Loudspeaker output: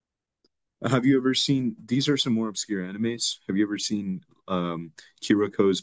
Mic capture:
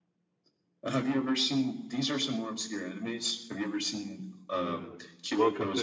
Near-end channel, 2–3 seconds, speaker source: echo only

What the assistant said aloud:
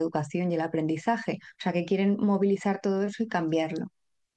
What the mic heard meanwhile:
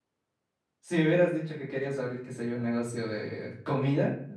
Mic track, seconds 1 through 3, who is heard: user only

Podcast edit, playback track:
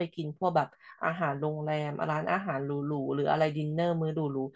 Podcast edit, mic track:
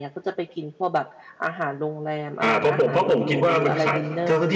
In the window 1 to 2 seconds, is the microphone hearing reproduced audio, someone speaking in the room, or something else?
echo only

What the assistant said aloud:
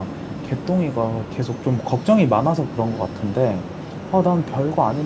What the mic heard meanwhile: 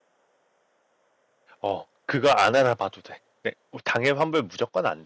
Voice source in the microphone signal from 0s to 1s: neither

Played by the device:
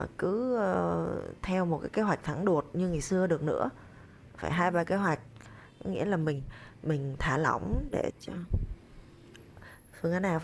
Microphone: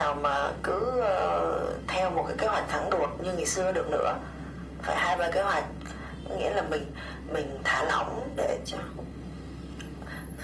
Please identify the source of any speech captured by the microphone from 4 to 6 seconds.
echo only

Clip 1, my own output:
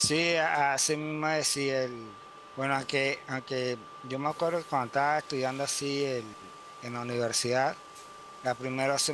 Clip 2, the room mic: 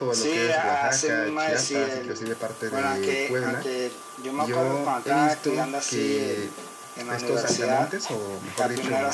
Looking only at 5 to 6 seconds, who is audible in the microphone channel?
both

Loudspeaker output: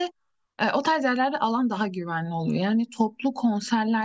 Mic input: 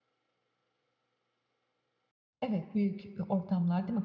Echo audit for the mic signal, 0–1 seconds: neither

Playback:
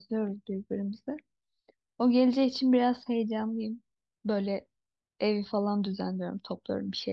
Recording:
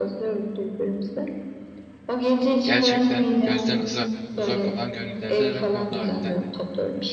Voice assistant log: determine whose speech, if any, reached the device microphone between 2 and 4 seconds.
both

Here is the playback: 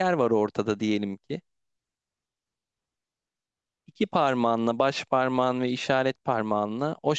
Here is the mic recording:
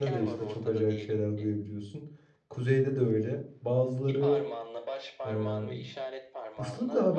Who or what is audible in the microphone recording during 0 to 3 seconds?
both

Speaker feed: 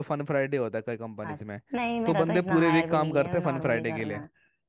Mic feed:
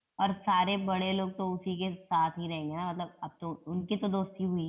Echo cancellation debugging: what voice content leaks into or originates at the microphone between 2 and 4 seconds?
user only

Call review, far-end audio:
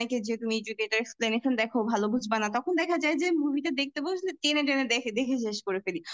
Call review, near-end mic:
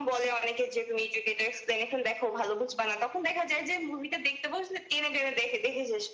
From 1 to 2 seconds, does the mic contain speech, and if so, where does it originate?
echo only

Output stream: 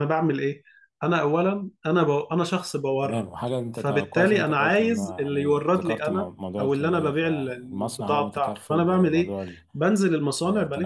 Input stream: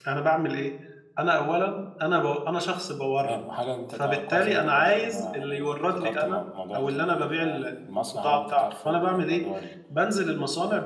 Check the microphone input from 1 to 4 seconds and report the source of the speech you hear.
echo only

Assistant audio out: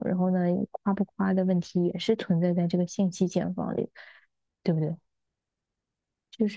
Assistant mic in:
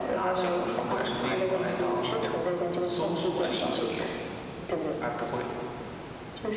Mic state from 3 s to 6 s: both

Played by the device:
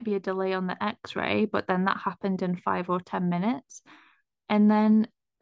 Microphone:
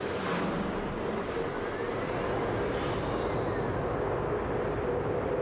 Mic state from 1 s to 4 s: neither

